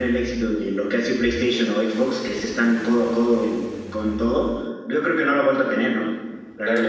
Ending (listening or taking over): taking over